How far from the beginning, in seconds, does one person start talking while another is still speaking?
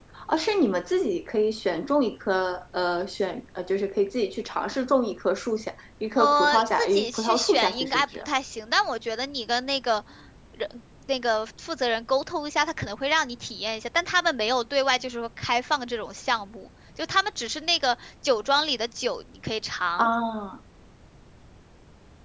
6 s

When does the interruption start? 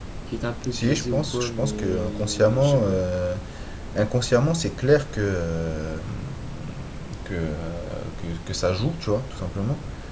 1 s

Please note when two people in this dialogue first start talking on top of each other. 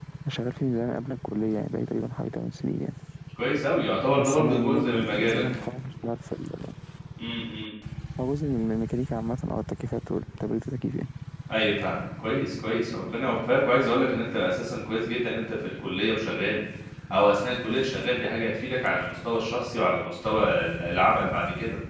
4 s

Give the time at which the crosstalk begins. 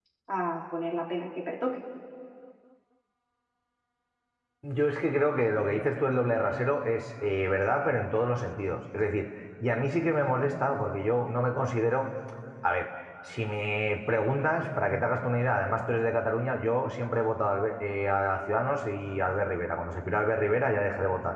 none

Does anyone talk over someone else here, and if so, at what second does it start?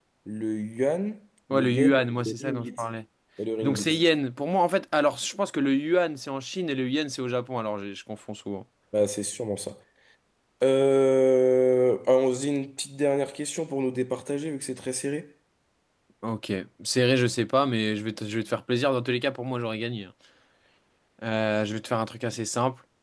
2 s

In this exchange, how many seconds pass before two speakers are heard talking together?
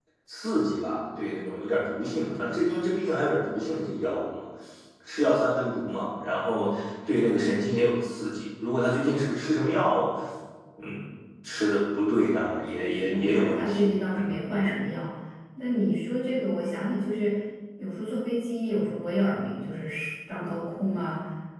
13 s

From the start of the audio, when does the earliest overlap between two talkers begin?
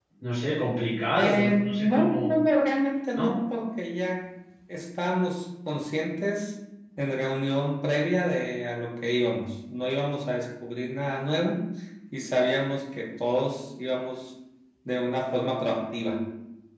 1 s

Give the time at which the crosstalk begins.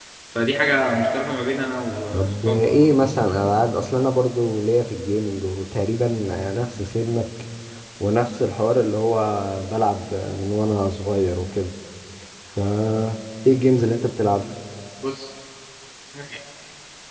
2 s

